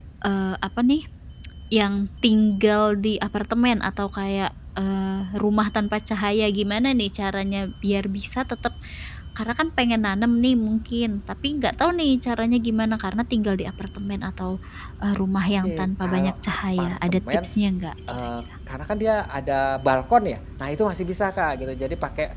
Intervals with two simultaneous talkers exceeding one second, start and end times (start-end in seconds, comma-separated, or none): 15.6-17.5